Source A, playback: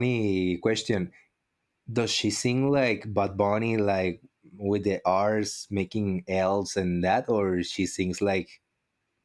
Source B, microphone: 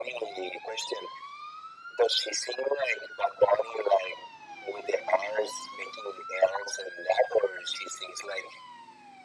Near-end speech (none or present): none